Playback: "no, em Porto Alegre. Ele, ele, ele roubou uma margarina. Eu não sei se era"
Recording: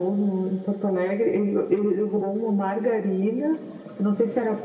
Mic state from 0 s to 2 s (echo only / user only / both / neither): echo only